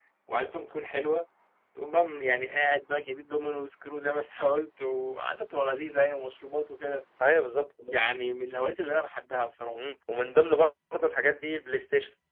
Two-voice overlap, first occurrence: none

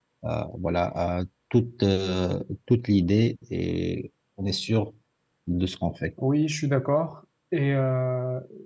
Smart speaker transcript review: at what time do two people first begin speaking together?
none

